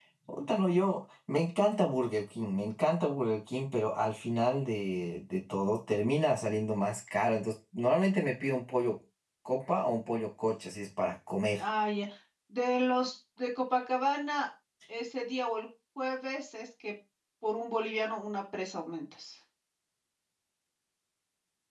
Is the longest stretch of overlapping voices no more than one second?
Yes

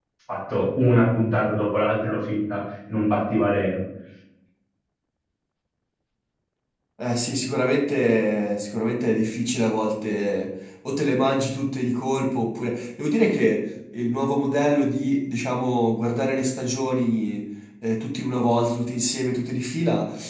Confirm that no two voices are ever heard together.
Yes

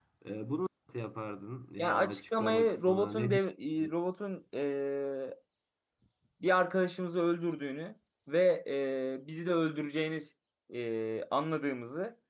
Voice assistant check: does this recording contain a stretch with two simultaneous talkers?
Yes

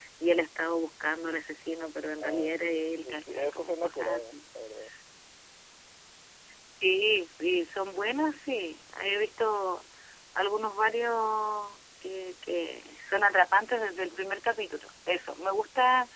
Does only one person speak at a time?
No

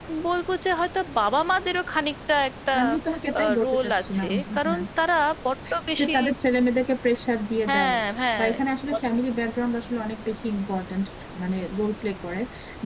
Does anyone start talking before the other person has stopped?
Yes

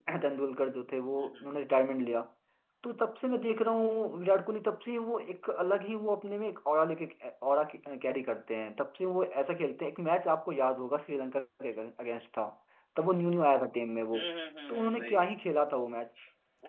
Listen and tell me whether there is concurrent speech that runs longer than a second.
No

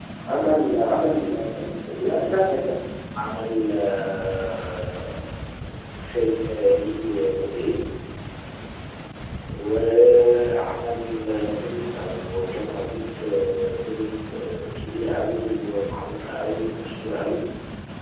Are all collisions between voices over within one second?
Yes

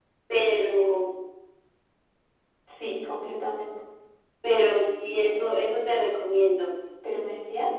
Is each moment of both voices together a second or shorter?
Yes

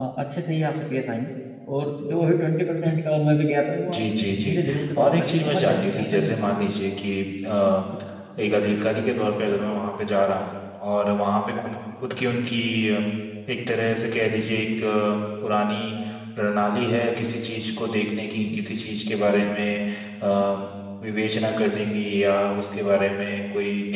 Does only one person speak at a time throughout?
No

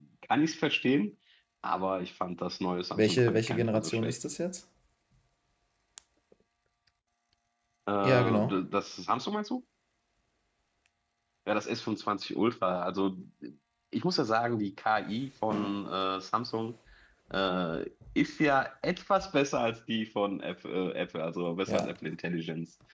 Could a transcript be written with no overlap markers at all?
No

